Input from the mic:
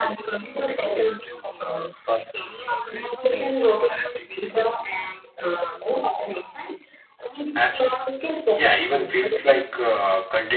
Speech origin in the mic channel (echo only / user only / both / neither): both